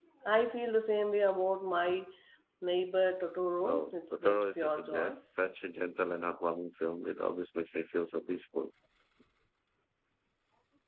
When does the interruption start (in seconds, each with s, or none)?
3.6 s